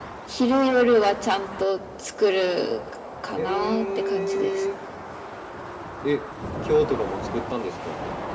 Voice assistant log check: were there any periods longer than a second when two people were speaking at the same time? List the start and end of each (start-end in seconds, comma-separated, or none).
3.4-4.6